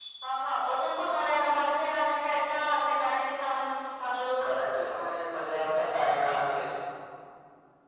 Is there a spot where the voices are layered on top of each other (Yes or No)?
No